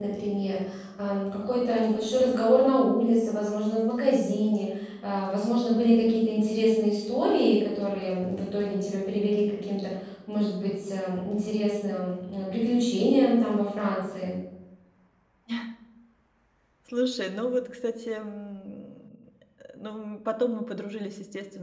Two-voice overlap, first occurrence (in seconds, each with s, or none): none